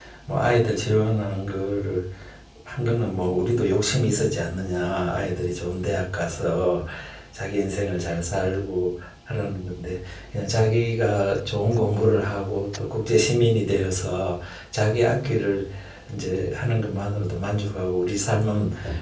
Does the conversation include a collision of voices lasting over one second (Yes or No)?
No